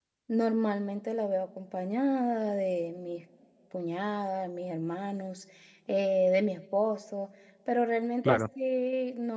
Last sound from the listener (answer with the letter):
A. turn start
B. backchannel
B